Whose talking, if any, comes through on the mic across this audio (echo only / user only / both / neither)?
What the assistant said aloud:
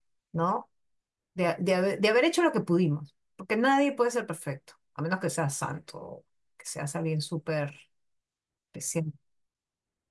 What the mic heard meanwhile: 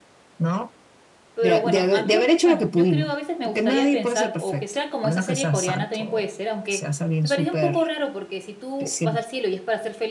both